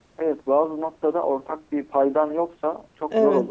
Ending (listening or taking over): listening